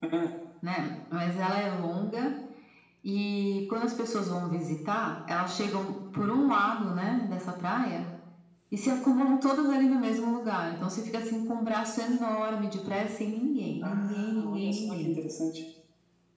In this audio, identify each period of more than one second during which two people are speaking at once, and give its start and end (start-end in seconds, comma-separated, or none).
13.8-15.2